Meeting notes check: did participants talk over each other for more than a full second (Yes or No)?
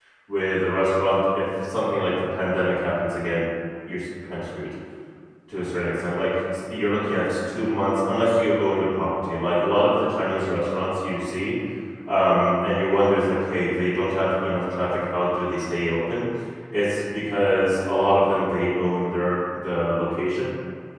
No